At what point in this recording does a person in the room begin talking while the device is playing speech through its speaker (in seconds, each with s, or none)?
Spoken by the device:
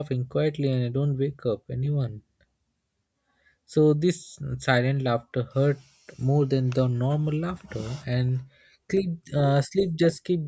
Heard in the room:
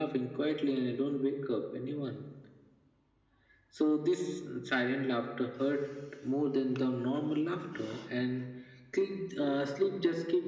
none